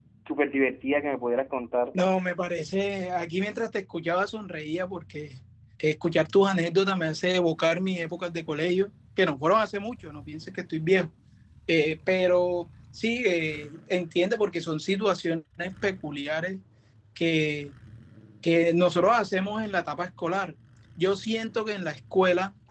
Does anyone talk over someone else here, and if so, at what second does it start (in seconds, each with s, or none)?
none